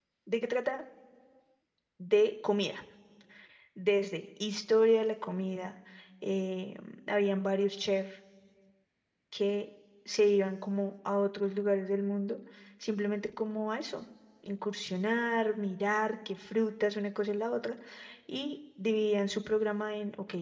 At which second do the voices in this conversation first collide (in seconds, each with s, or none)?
none